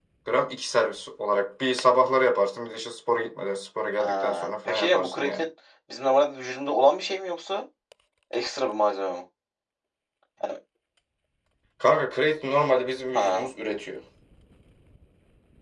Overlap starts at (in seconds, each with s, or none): 4.0 s